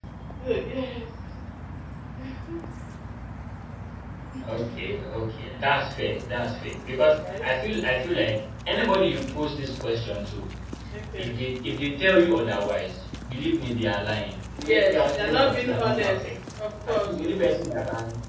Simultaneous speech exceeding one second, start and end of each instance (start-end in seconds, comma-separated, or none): 14.6-16.3